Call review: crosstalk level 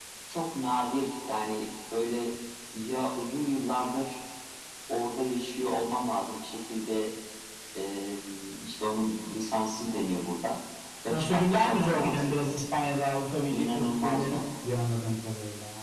present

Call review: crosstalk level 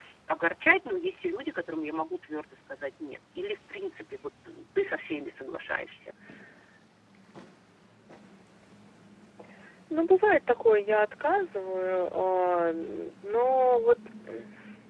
none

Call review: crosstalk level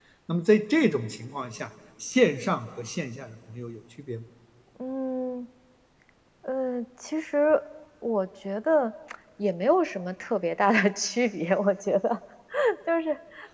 none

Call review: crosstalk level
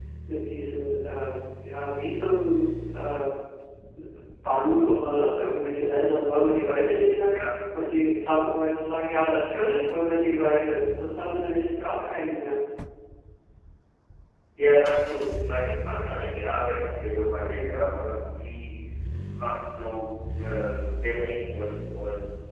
none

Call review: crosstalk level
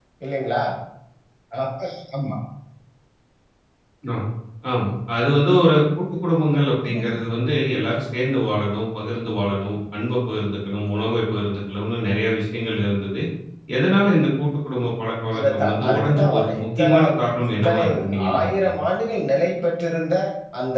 present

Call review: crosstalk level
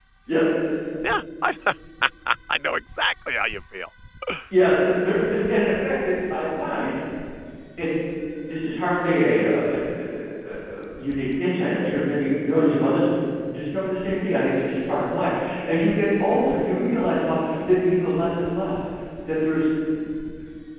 none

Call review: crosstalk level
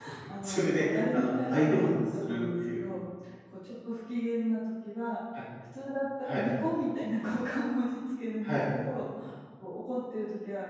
present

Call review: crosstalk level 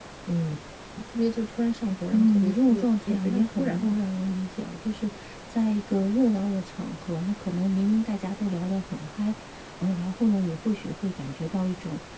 present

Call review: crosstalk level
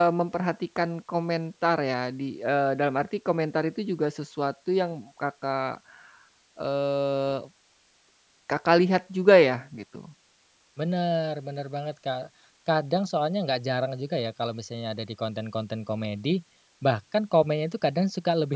none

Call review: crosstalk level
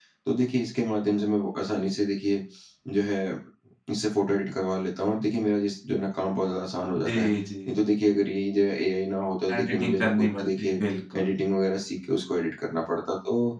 present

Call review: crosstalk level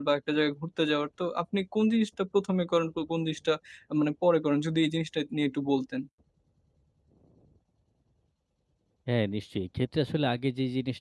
none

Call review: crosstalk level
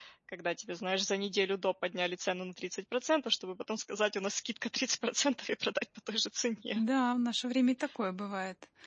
none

